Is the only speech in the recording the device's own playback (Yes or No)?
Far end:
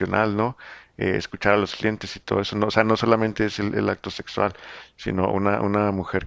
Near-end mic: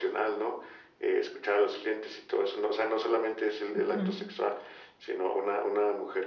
No